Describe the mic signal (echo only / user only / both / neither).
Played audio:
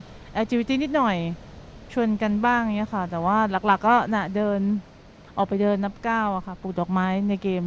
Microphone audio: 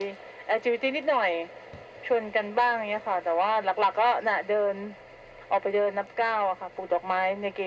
echo only